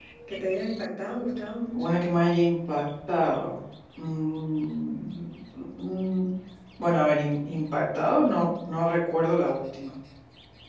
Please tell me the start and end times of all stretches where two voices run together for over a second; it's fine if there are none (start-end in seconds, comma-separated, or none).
none